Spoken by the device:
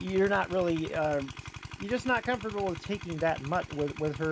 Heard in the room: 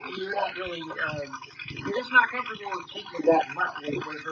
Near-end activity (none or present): none